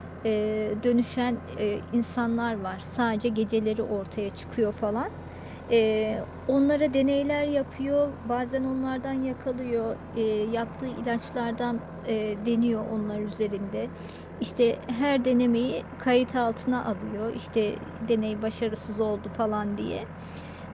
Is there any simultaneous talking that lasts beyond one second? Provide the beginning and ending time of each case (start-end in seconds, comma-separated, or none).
none